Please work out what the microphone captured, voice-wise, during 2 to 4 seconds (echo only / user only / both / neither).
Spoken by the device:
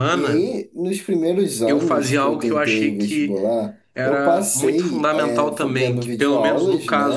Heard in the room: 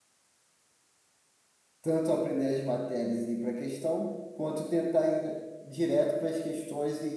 user only